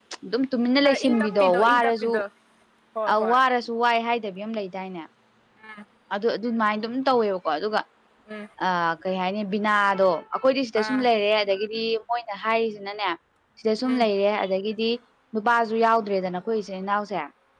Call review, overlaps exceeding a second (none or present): present